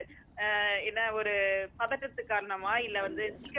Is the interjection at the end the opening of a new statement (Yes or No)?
No